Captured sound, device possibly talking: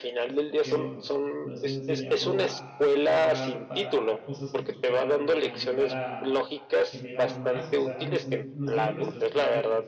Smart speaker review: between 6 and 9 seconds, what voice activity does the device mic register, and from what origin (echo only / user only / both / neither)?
both